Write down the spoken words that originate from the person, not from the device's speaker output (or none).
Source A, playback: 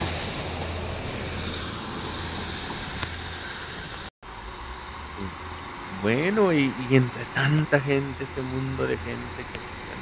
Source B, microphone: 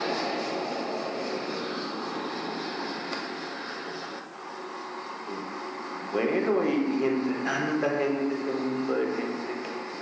none